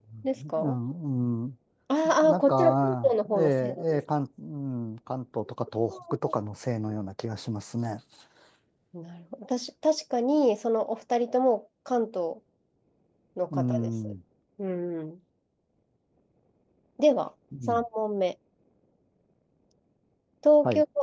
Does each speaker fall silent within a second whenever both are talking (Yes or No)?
No